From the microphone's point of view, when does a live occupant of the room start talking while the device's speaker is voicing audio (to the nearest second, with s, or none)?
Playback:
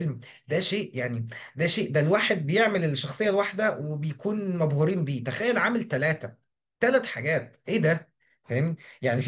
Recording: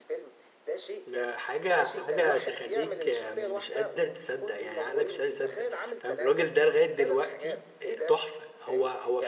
1 s